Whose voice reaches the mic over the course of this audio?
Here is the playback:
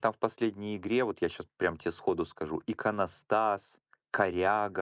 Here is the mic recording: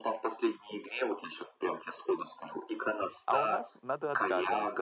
both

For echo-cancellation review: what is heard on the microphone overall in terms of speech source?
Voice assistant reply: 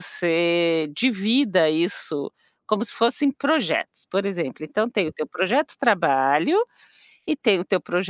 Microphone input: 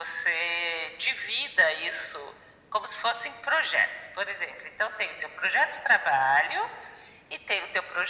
echo only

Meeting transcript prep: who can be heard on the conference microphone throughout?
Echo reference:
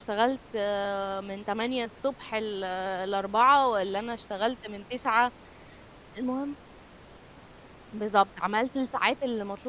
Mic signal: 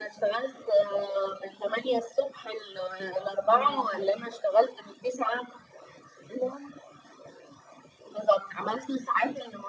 both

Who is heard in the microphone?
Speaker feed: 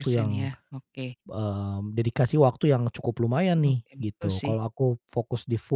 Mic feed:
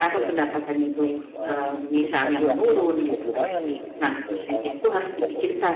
both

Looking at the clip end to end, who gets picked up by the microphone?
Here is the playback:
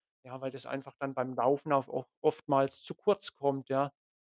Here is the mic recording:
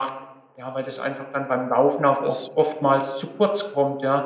both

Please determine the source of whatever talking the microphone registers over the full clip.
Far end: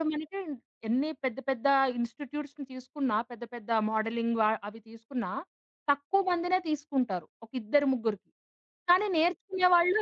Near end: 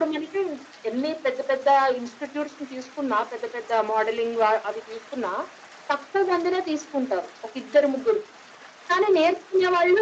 echo only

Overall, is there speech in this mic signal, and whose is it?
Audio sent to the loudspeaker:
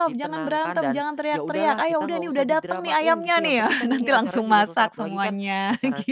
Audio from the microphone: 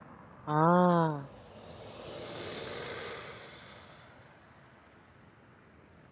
user only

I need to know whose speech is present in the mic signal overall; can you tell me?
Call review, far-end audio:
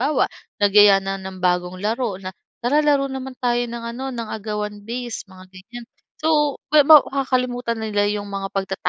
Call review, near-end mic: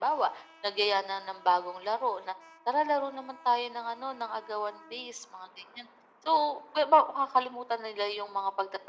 echo only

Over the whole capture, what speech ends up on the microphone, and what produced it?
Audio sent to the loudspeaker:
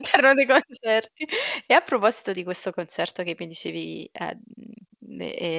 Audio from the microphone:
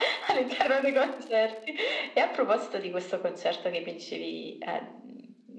echo only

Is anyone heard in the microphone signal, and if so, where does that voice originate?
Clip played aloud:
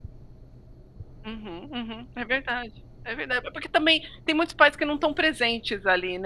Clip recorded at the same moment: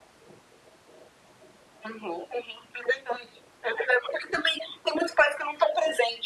echo only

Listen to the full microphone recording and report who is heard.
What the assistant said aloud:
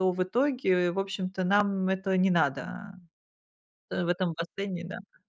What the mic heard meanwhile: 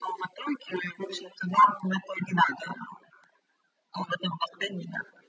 echo only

